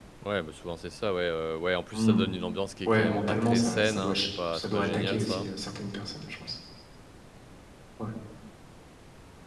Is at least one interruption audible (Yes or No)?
Yes